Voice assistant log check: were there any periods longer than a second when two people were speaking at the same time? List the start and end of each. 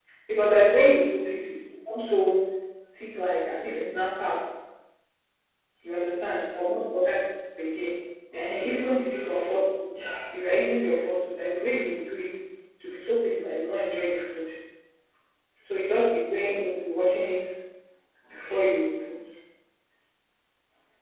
8.3-9.5

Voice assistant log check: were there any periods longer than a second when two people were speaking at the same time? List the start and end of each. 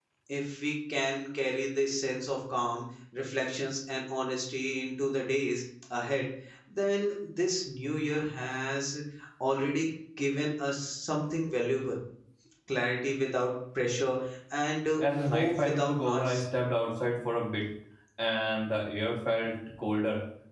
15.0-16.4

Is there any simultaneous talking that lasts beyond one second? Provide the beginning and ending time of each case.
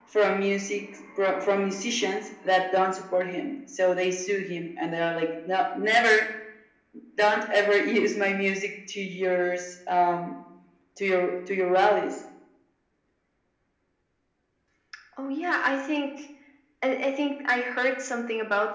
none

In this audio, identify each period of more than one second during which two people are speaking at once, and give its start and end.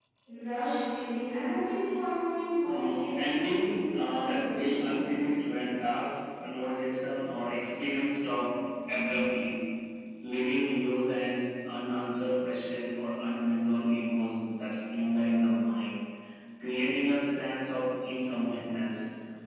2.7-5.0

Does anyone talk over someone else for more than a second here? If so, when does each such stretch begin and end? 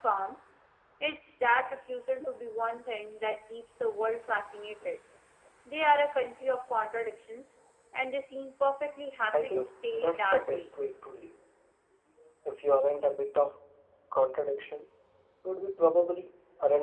9.3-10.7

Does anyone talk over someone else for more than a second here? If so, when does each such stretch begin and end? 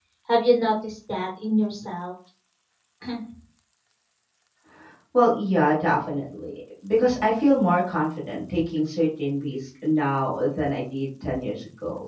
none

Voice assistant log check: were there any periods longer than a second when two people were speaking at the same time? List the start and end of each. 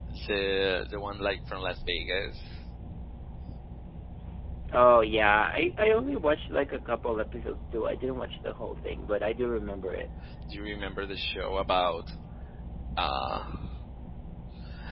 none

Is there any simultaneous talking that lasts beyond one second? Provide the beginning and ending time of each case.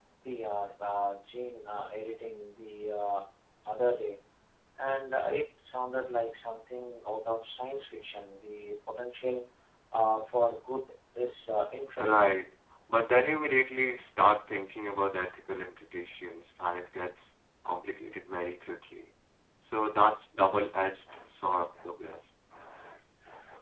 none

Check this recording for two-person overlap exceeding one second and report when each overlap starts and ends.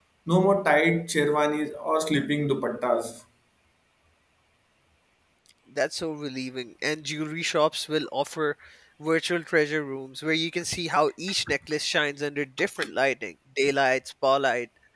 none

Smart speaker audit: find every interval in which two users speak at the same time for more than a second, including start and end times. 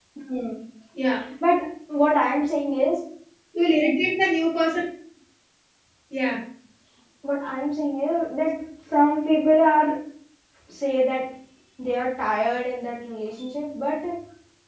none

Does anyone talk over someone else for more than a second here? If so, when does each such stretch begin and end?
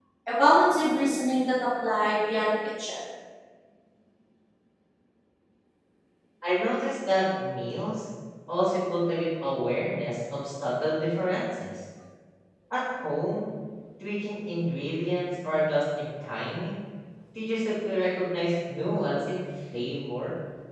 none

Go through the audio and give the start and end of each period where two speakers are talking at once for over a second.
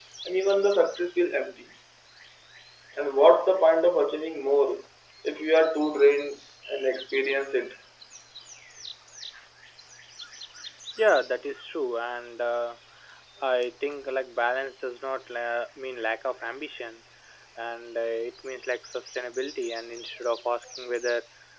none

